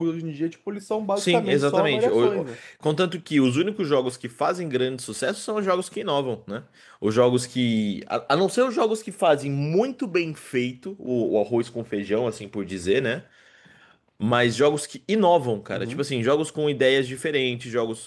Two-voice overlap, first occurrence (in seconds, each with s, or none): 1.2 s